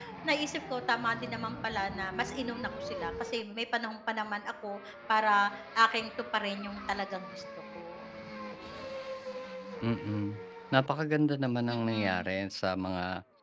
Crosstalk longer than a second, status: none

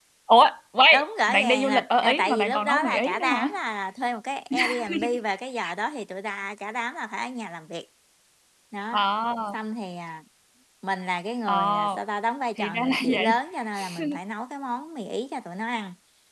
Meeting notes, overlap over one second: present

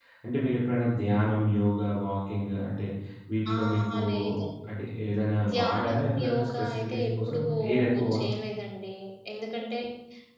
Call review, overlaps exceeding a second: present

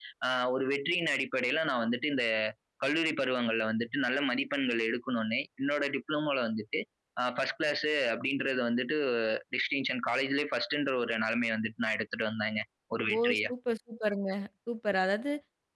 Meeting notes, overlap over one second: none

